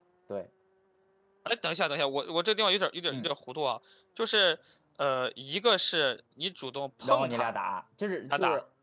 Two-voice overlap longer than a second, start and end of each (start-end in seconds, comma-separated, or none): none